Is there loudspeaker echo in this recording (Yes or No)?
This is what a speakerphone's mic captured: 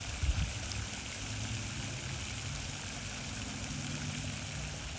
No